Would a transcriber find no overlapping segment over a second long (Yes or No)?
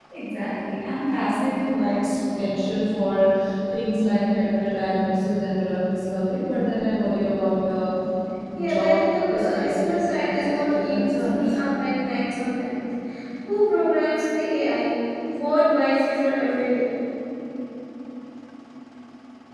No